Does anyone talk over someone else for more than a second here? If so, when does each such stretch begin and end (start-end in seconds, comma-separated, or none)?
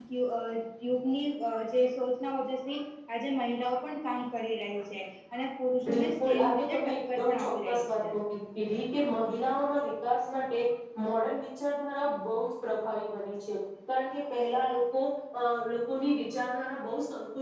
5.9-8.2